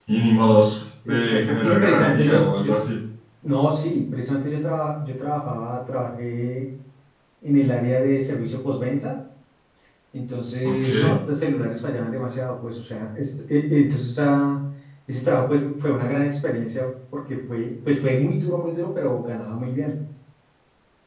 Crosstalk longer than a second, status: present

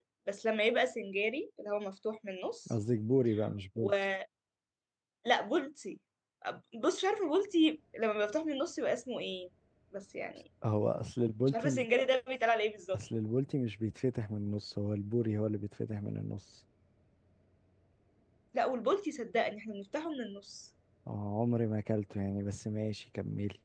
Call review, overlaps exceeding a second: none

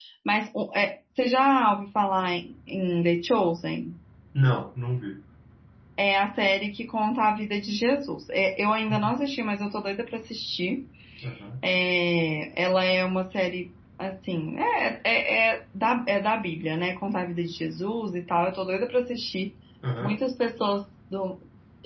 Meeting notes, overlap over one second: none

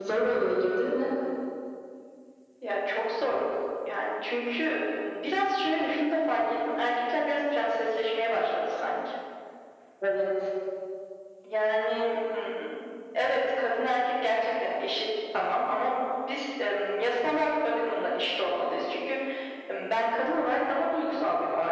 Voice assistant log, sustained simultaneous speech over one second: none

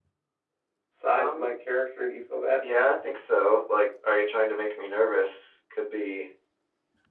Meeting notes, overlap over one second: none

